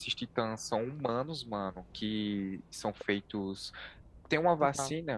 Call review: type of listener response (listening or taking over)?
listening